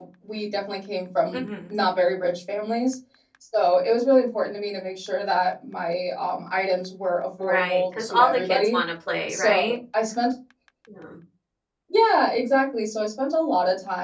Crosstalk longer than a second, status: present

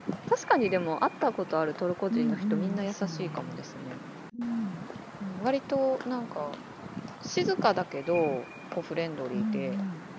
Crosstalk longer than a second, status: present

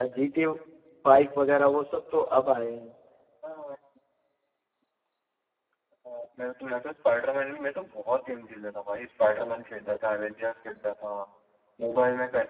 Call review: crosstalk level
none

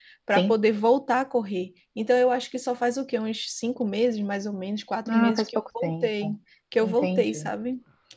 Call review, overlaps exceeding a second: present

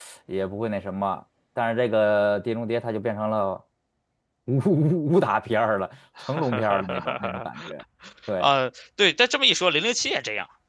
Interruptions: present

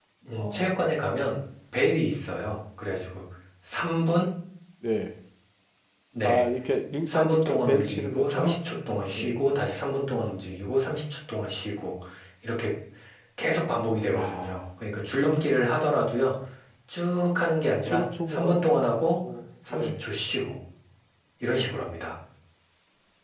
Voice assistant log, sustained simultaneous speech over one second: present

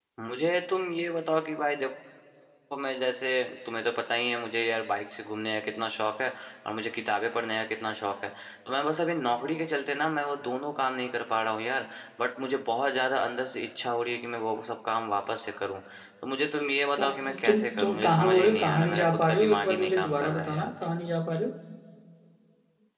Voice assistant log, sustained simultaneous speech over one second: present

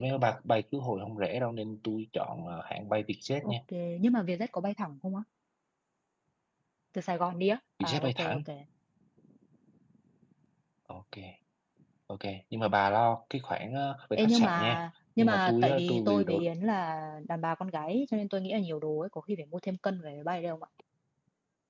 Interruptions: present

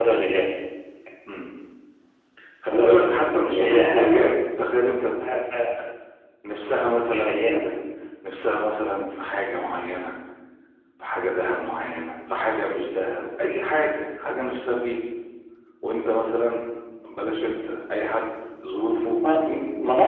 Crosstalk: present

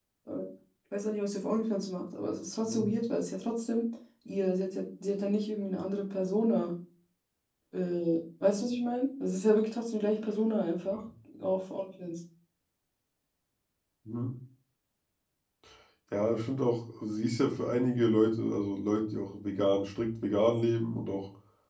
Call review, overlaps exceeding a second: none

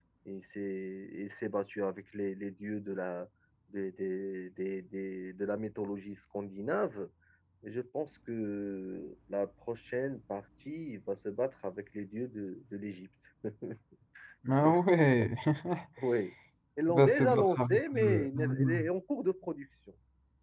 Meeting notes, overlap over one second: present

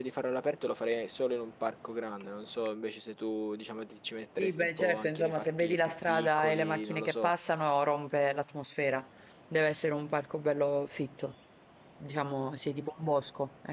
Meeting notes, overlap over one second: present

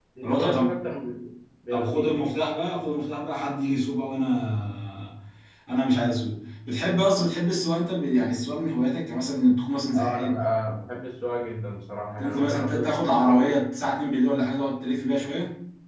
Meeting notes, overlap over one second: present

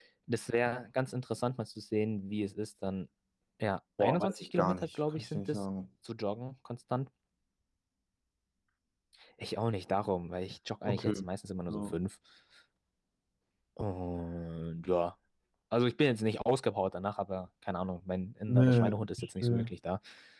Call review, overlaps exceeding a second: present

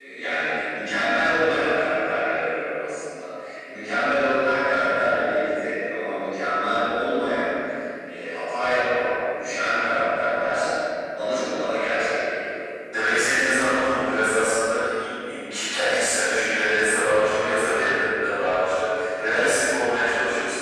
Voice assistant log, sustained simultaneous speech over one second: none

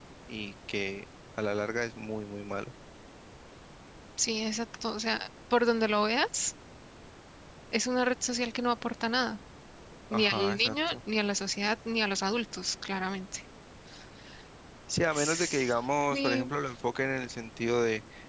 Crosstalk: present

